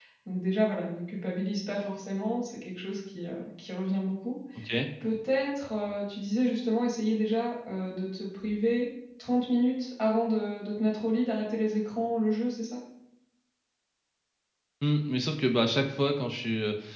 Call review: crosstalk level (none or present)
none